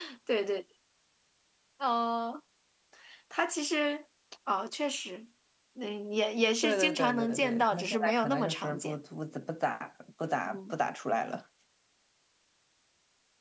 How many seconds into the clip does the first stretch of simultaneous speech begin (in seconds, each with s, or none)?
6.6 s